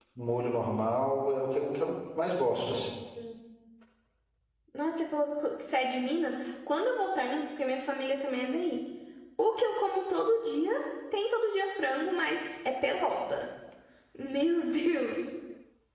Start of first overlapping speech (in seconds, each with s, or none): none